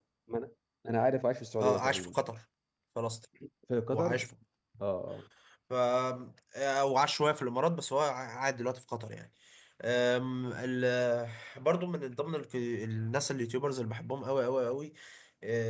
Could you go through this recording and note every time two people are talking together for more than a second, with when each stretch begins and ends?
none

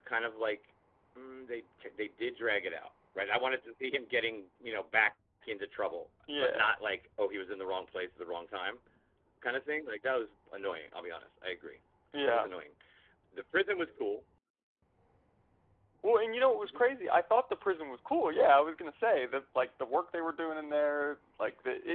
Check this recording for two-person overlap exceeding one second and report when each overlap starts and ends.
none

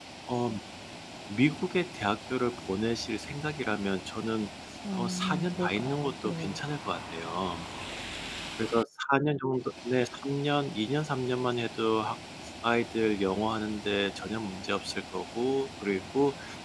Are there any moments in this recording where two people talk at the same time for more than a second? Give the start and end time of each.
5.0-6.6

